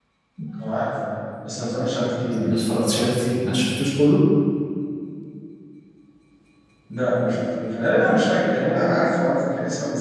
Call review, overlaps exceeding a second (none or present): none